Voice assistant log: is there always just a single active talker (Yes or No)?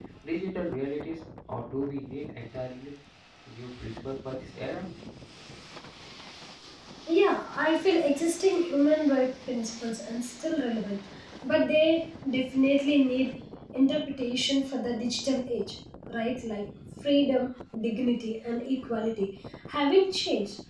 Yes